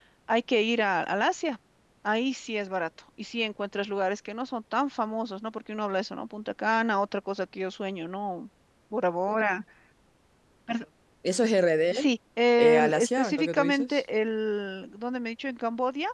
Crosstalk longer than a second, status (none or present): present